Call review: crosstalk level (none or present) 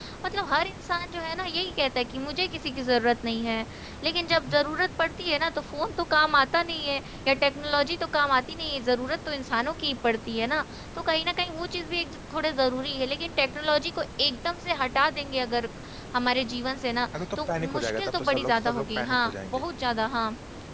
present